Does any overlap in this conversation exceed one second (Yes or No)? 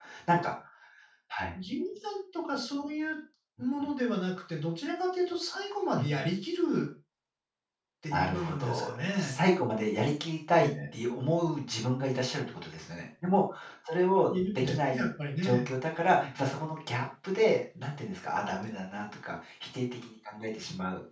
Yes